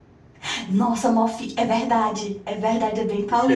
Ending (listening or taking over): taking over